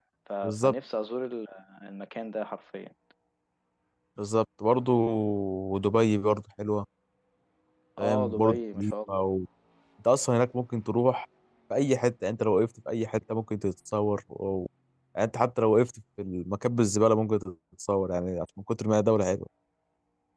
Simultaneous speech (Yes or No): Yes